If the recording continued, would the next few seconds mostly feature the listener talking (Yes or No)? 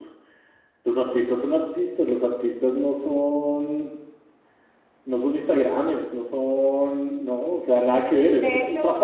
Yes